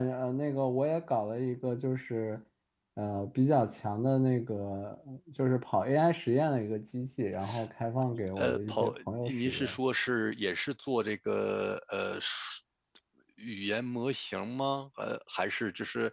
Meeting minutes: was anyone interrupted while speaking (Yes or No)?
Yes